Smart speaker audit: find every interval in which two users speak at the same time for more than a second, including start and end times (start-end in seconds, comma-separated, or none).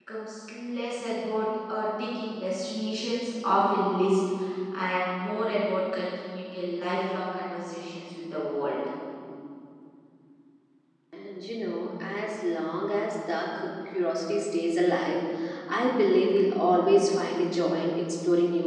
none